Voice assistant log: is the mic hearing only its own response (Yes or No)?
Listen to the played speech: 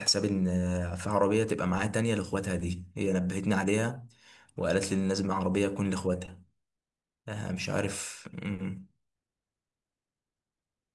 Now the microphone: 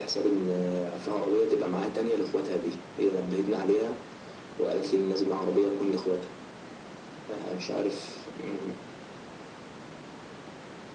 Yes